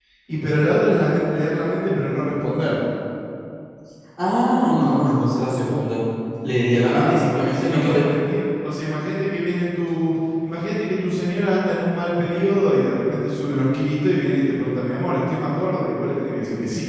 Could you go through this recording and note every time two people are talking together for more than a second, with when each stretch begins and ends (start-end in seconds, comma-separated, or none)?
6.7-8.0